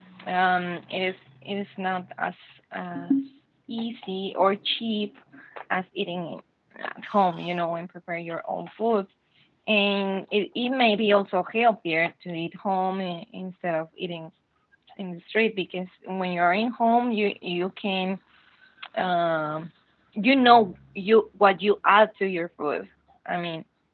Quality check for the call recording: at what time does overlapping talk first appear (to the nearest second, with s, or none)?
none